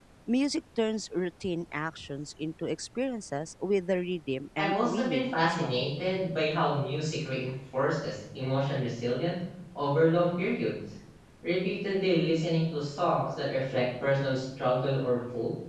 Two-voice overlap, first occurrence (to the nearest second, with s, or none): 5 s